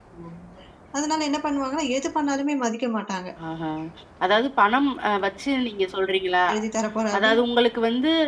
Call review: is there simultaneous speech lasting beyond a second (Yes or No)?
No